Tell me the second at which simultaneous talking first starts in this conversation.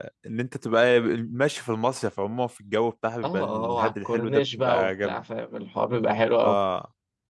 3 s

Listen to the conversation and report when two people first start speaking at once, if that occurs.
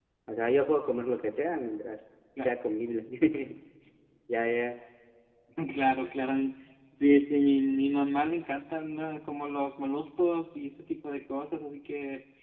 none

